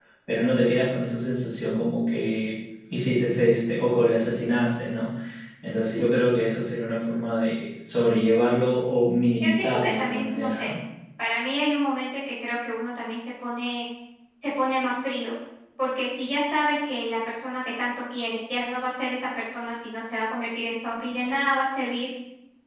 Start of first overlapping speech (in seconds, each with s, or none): 9.4 s